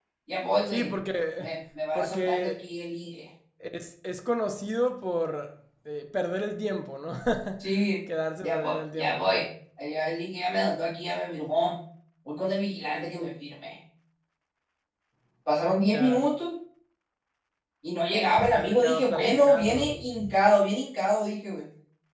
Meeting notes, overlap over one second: present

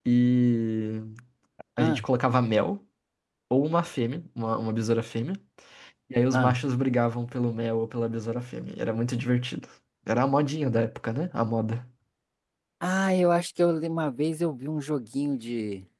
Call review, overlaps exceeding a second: none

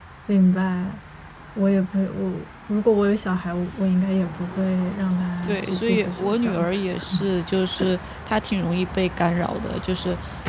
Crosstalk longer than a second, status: present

